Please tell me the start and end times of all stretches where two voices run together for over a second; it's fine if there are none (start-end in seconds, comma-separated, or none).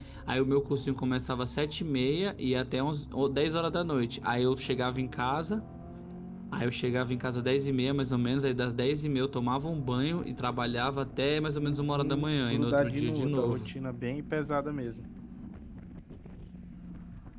11.6-13.7